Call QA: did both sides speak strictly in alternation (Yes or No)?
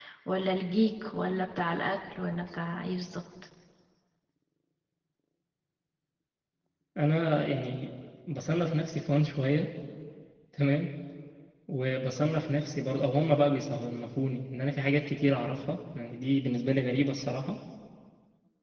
Yes